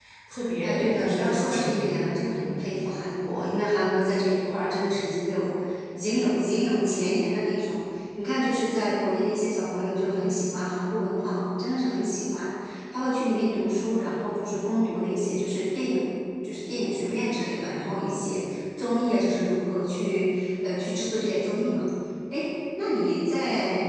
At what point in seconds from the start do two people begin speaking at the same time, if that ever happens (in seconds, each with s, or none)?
0.6 s